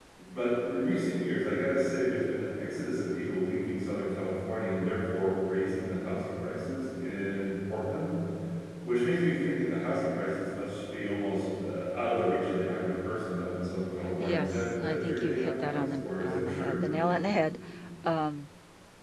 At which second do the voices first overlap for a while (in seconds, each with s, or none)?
14.1 s